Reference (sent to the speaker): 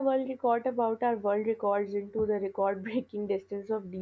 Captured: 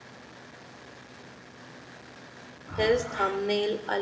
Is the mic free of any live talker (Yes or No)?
No